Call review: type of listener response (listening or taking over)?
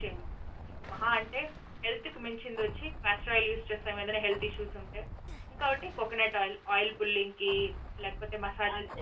taking over